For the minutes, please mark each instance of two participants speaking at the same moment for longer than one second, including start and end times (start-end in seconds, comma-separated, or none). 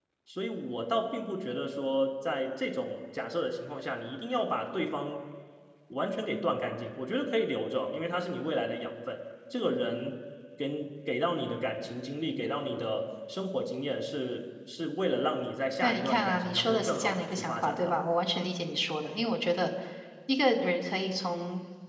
15.8-17.9